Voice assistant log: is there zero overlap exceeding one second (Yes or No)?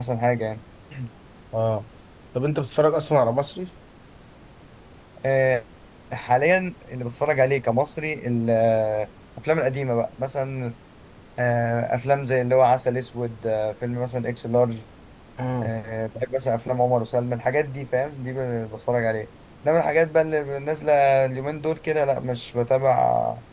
Yes